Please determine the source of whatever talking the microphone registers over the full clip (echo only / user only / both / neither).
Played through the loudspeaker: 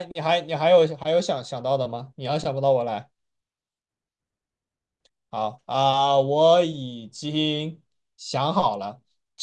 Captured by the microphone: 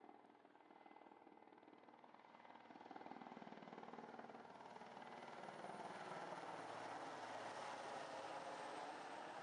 neither